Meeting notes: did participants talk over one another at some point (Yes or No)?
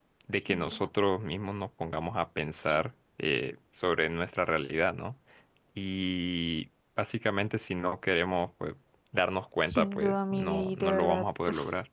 Yes